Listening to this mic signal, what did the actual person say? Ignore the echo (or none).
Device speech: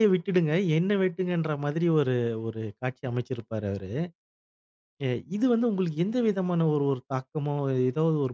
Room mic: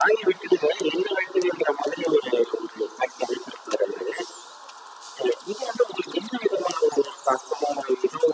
none